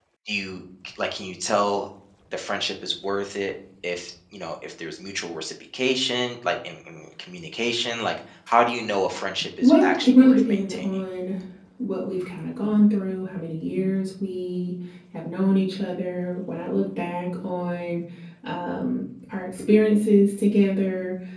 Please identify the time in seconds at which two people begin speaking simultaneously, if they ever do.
9.6 s

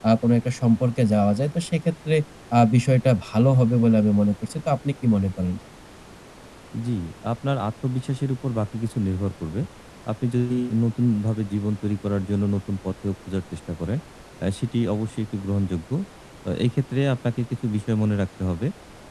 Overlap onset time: none

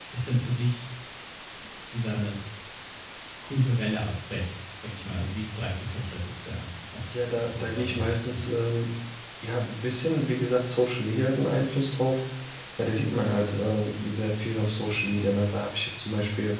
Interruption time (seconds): 7.1 s

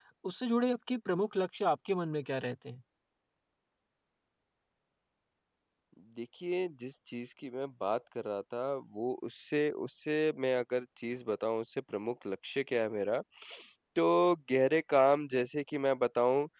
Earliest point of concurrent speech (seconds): none

